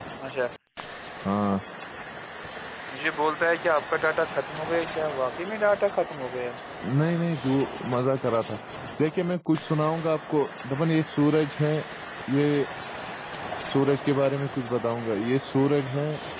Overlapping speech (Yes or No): No